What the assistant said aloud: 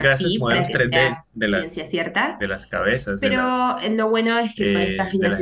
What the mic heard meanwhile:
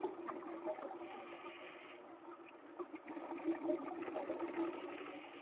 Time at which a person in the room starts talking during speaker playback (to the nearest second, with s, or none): none